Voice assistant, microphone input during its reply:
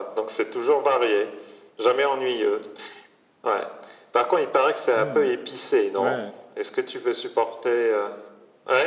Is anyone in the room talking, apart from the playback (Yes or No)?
Yes